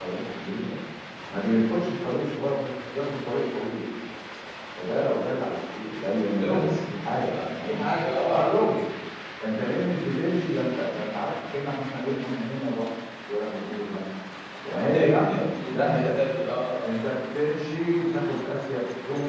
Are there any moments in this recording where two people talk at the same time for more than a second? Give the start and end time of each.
14.7-16.1

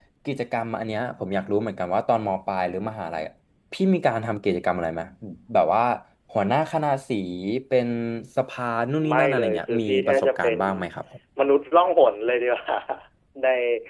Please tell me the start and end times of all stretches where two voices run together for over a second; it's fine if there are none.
9.1-10.6

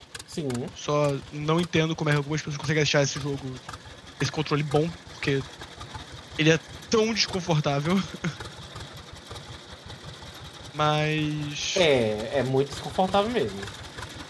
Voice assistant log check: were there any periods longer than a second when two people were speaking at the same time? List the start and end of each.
none

